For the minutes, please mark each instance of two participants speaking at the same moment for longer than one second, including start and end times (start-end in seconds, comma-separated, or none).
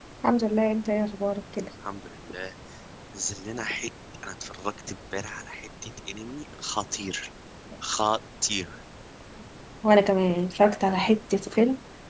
none